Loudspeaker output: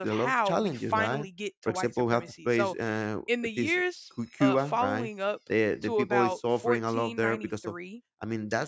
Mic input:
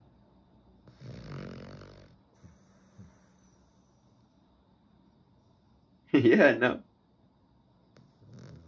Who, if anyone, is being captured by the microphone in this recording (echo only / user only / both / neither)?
user only